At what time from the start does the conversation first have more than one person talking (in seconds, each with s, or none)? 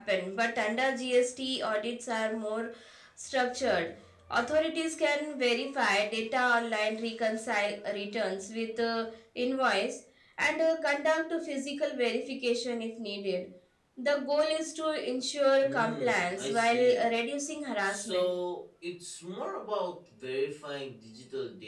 15.6 s